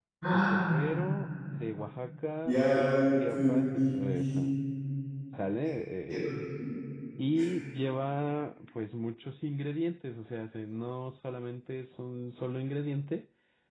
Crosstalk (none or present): present